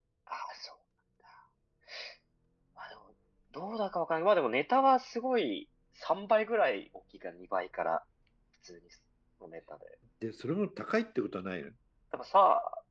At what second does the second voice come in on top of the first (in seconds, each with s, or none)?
none